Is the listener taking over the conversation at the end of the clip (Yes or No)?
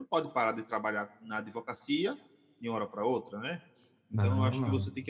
No